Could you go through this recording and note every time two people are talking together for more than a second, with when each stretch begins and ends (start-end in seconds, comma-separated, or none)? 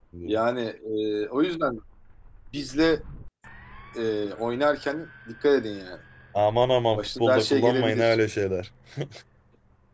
6.9-8.2